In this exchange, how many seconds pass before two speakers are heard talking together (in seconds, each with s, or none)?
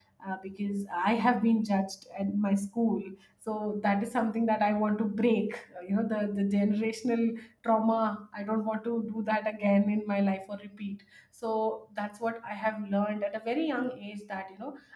none